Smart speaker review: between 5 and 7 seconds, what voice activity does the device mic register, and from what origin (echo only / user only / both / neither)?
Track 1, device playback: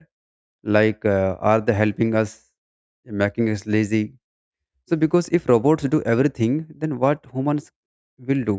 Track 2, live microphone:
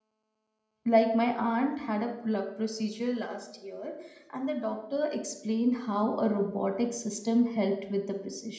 user only